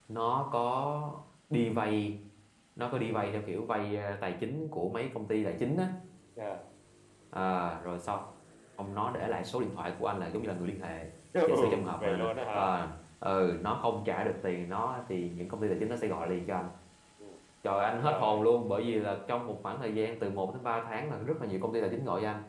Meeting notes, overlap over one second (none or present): present